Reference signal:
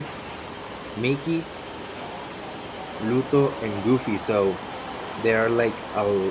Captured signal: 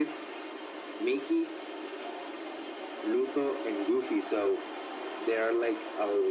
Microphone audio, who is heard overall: echo only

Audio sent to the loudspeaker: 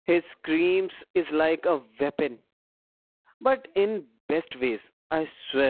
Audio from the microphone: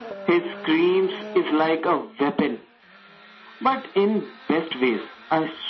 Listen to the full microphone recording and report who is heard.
echo only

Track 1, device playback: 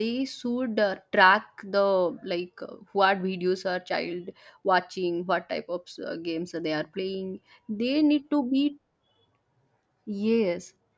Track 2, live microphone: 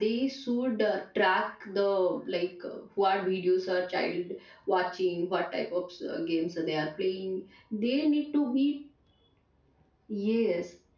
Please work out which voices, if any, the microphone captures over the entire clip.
echo only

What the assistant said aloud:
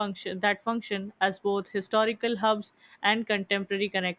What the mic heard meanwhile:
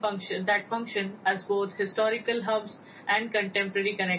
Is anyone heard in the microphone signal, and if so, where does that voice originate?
echo only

